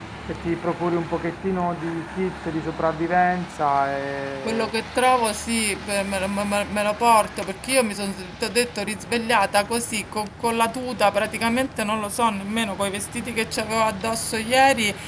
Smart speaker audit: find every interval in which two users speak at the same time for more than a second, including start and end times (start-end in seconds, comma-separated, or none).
none